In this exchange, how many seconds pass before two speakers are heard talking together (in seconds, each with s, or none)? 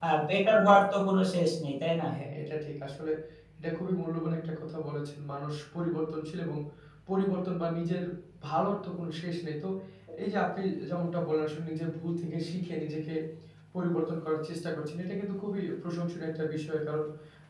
none